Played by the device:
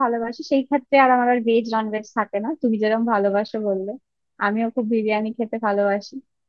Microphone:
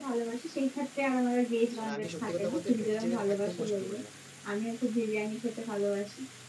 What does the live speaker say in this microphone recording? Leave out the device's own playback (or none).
মানে আমি সত্যি কথা বলতে ভেজিটেরিয়ান একদম পছন্দ করি না